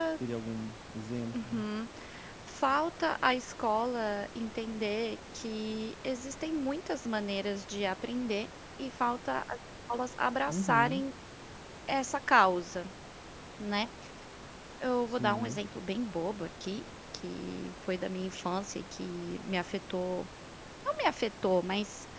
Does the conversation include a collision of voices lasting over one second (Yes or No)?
No